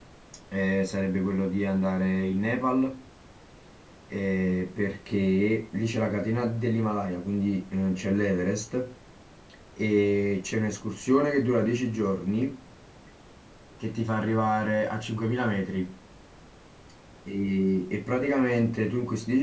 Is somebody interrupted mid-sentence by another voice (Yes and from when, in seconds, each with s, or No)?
No